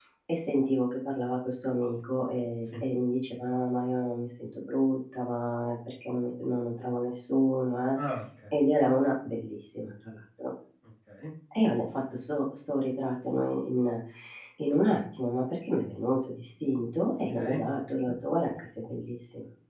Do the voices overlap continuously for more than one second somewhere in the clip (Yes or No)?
No